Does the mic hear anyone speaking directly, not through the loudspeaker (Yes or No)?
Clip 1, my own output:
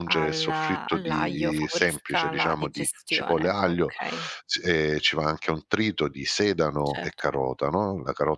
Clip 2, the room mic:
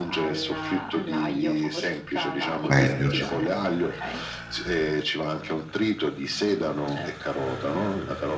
Yes